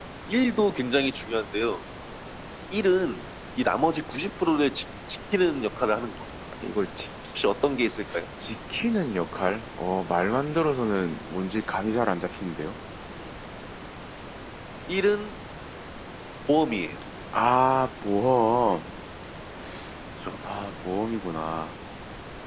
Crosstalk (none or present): none